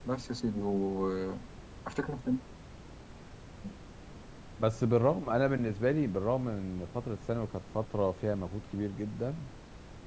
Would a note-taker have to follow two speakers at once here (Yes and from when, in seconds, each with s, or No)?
No